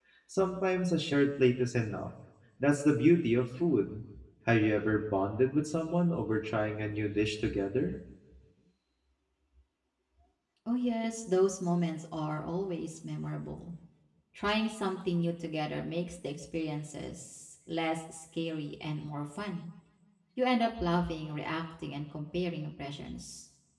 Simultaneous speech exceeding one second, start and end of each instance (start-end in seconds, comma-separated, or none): none